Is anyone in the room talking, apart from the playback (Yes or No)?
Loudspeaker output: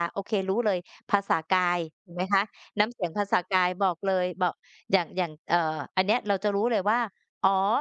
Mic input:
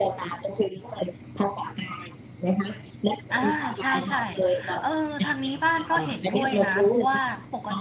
Yes